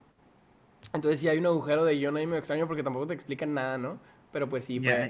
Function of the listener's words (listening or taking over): listening